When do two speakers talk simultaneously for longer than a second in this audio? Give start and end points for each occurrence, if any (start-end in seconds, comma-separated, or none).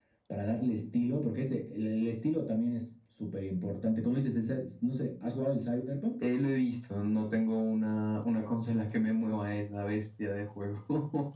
none